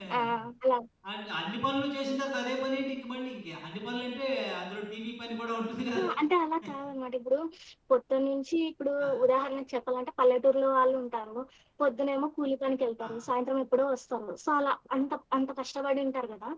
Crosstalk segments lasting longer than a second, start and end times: none

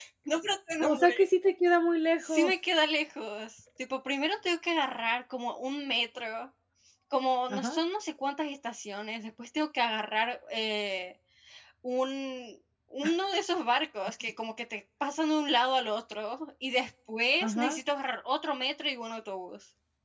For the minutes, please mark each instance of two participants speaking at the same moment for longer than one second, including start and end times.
none

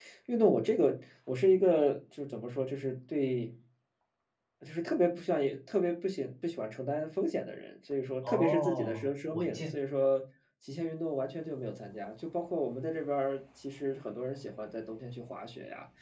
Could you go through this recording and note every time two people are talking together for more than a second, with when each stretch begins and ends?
8.2-9.7

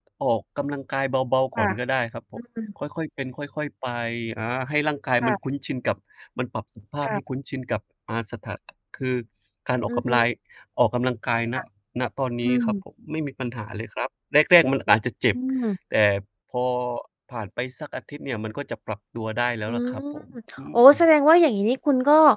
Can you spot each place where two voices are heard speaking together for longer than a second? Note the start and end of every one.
none

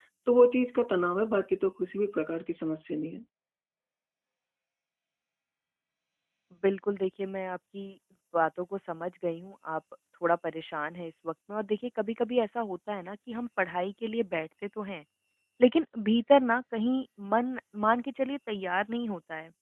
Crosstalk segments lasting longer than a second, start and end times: none

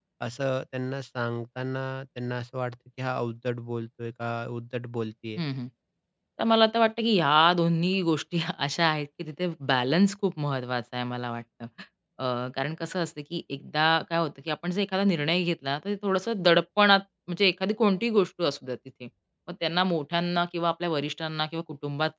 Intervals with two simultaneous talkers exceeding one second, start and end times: none

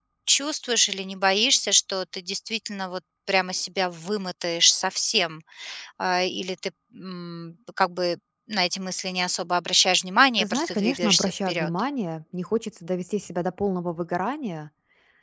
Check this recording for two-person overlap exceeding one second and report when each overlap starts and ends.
10.4-11.7

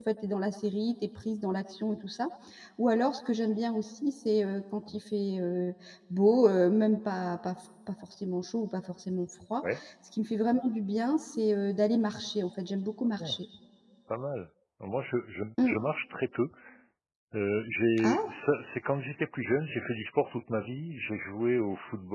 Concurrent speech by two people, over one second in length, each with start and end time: none

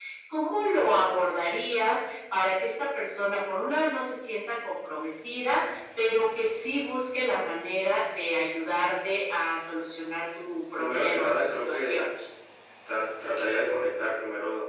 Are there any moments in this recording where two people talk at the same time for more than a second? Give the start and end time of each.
10.8-12.0

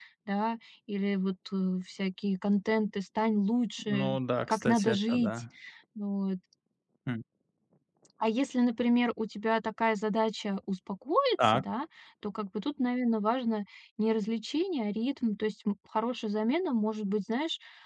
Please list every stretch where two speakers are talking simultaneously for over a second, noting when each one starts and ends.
3.9-5.4

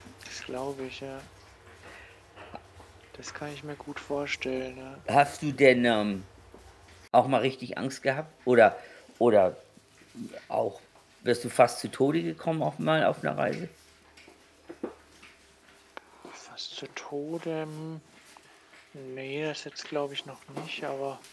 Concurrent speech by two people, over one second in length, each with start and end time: none

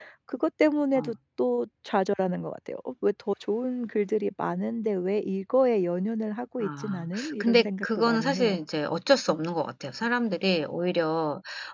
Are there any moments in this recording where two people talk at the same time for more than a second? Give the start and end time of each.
6.6-8.5

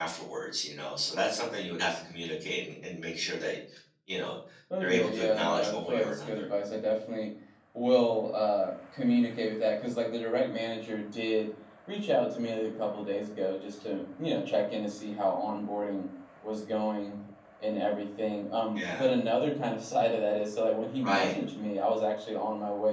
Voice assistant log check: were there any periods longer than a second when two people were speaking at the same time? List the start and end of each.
4.8-6.4

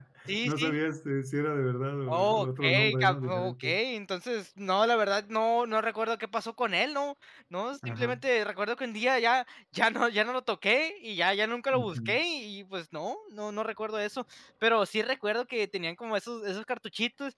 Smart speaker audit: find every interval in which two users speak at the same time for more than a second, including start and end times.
2.1-3.8

